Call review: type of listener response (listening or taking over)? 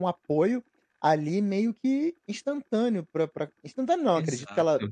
listening